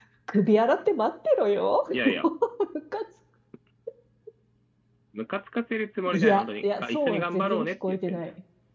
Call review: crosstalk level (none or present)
present